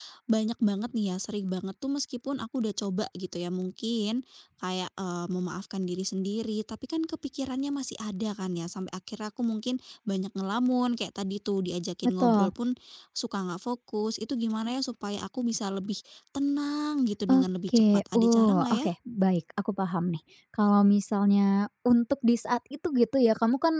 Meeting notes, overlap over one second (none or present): present